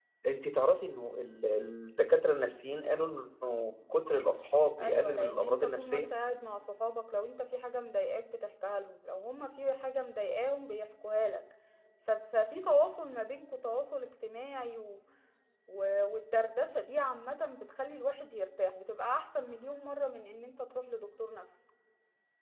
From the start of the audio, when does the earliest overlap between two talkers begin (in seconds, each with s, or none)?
4.8 s